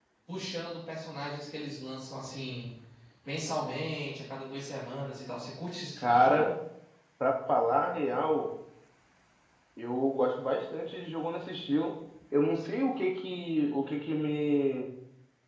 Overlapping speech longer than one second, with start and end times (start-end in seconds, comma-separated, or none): none